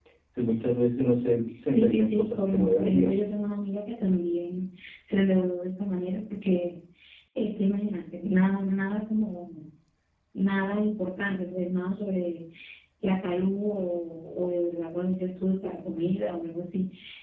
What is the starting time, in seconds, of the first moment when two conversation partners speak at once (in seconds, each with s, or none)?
1.7 s